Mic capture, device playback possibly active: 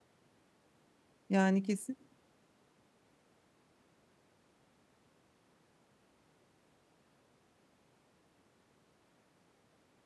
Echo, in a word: none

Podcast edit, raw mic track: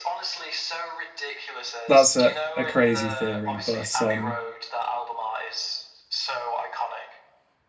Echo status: present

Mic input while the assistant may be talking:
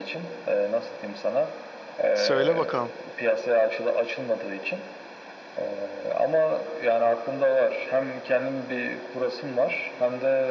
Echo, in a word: present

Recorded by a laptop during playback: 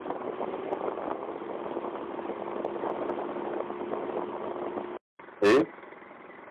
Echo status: none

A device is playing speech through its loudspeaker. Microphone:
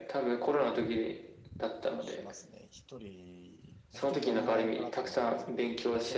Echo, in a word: present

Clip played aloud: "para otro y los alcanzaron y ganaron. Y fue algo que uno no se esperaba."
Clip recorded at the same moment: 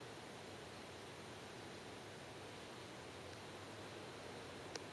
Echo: none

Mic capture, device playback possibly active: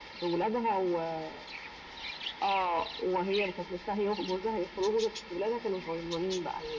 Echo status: present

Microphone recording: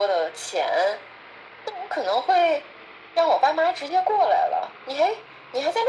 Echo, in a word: present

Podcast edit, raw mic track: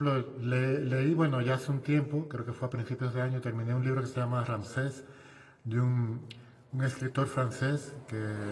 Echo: none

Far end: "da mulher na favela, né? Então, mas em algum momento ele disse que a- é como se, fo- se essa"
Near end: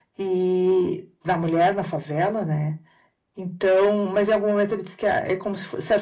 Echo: present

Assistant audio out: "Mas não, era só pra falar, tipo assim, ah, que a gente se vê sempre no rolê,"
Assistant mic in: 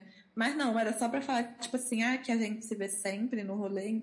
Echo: present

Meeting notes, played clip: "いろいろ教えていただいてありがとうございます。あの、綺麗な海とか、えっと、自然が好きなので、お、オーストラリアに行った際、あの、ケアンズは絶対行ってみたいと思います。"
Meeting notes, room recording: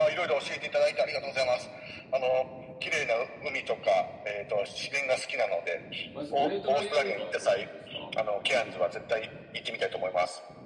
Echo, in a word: present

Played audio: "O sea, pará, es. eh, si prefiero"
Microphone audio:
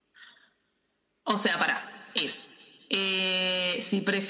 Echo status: present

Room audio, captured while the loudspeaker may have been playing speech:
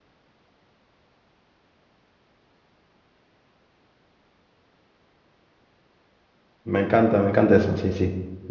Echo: none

